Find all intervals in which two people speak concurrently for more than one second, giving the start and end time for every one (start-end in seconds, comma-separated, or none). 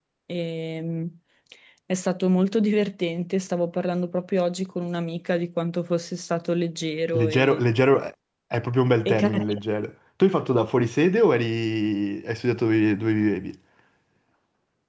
none